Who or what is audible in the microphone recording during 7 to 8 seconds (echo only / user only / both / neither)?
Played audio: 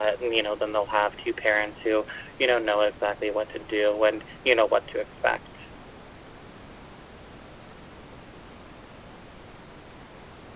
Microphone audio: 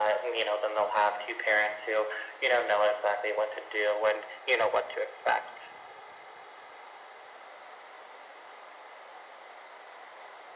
neither